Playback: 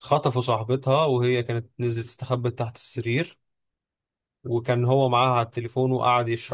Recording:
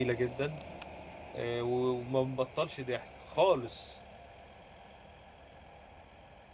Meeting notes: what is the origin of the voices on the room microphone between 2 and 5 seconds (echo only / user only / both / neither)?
user only